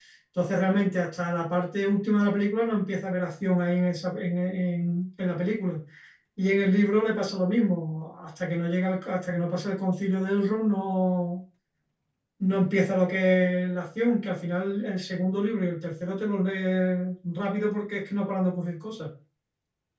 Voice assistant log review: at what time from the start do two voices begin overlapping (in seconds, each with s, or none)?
none